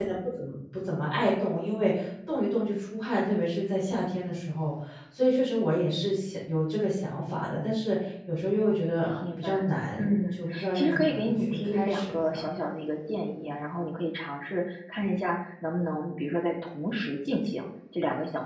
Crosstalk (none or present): present